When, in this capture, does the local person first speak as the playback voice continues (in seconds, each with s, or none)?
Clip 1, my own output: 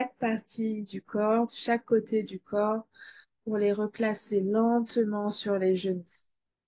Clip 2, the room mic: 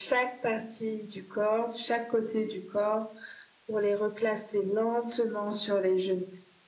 none